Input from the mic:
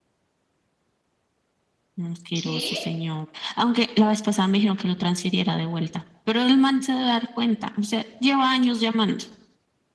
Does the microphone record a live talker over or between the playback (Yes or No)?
Yes